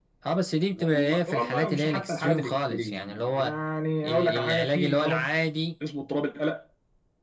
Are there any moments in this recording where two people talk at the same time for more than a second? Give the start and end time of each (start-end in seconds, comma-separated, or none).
0.7-3.6, 4.0-5.3